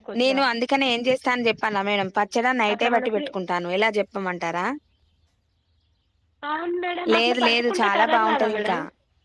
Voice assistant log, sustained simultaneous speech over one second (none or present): present